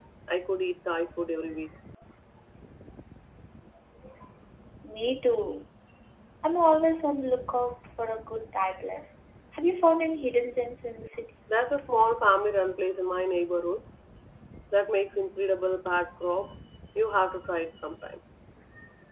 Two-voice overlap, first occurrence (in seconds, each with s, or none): none